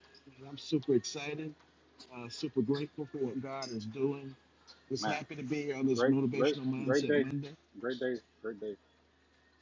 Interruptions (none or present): present